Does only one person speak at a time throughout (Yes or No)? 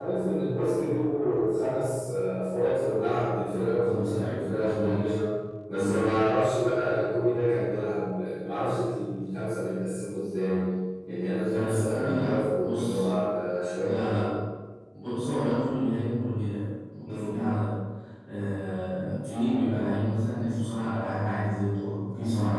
No